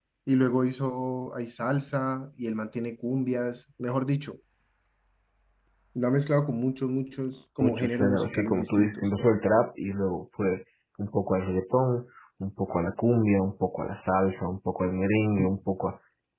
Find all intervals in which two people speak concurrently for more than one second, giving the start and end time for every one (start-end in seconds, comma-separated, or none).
7.6-9.1